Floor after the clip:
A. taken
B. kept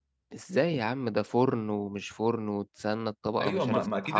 A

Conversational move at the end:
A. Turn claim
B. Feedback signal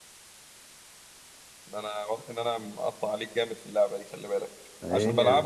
B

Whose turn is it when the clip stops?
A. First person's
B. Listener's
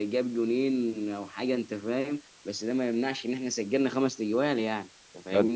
B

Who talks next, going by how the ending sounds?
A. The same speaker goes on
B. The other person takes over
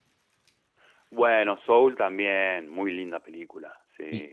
B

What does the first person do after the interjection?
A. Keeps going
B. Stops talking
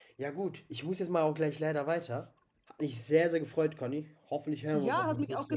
B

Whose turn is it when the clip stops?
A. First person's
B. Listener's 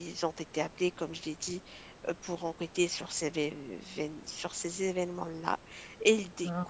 A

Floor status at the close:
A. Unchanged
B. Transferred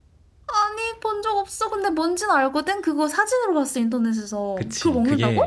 B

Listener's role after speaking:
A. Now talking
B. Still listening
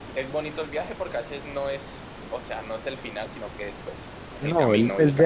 A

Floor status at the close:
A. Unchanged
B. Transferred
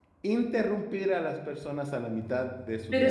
B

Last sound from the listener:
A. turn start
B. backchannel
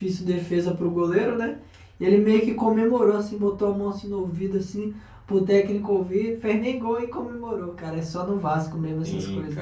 A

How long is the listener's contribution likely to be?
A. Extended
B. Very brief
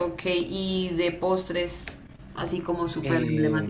A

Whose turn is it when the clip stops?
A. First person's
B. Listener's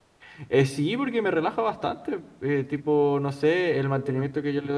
A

